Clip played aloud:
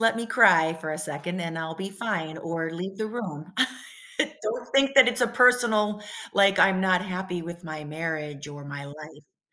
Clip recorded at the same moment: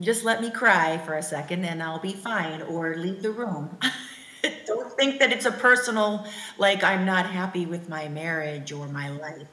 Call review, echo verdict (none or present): present